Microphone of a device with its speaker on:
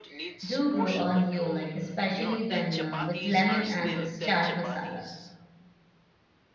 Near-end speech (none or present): present